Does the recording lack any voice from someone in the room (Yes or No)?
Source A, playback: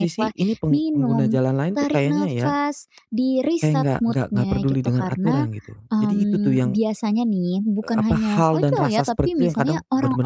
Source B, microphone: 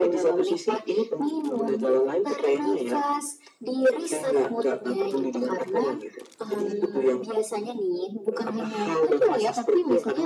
Yes